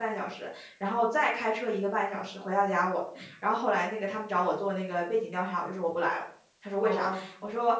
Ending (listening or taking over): listening